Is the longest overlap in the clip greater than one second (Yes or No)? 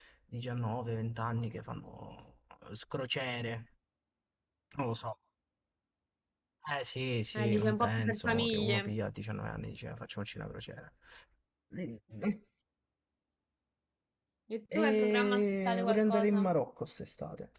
Yes